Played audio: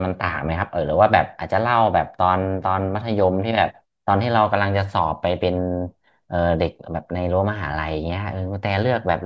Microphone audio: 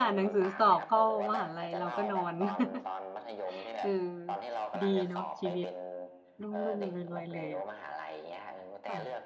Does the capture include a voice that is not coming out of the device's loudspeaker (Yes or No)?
Yes